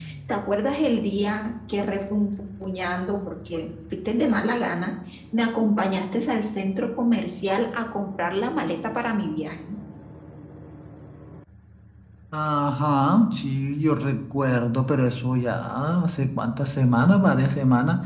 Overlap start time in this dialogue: none

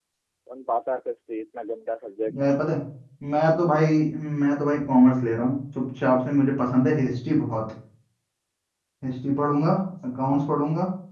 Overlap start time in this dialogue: none

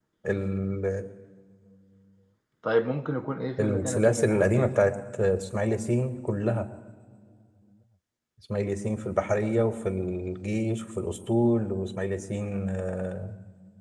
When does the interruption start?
3.6 s

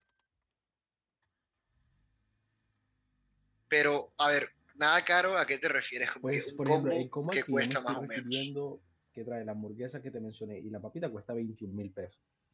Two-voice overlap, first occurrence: 6.2 s

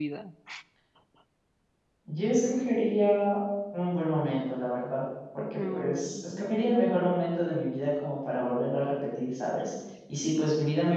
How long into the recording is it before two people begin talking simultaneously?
5.4 s

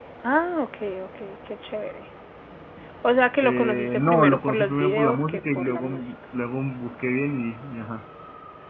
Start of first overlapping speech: 3.4 s

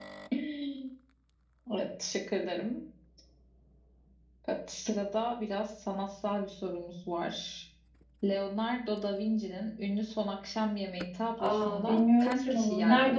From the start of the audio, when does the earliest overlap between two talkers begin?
11.4 s

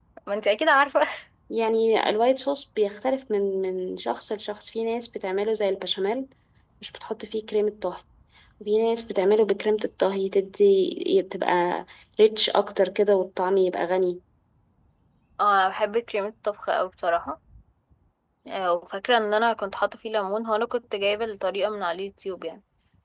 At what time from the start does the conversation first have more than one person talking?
none

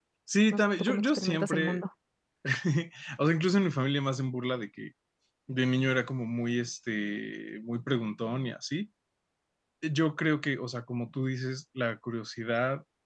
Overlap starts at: 0.5 s

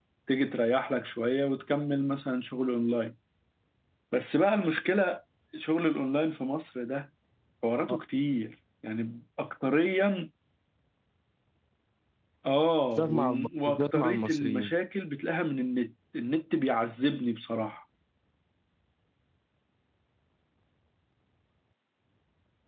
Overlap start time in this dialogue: 12.9 s

